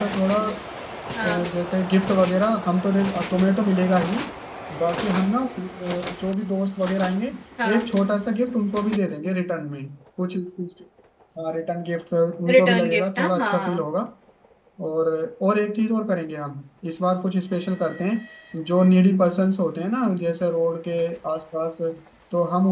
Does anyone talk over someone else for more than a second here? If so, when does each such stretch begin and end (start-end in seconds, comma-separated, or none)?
12.5-13.9